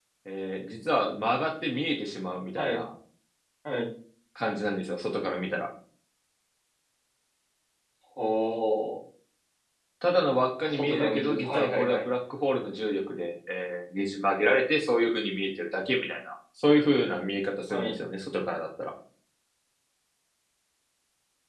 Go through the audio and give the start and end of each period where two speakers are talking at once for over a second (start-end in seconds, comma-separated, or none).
10.6-12.0